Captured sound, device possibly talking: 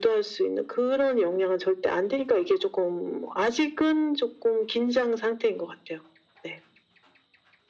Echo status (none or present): present